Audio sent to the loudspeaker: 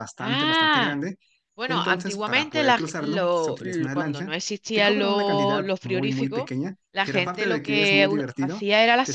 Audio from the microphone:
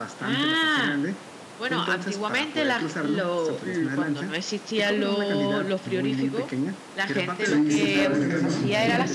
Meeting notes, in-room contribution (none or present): present